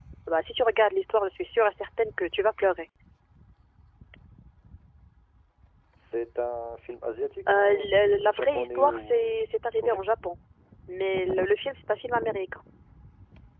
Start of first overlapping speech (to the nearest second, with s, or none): 7 s